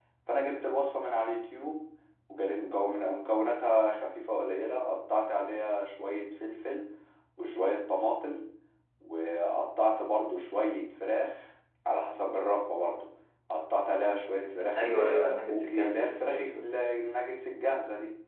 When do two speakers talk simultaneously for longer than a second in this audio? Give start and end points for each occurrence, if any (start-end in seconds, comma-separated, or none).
14.8-16.8